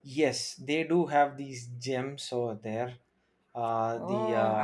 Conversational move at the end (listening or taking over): taking over